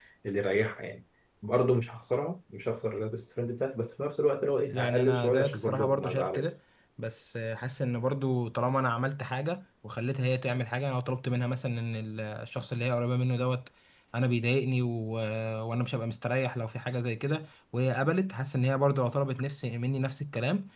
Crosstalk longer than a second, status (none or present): present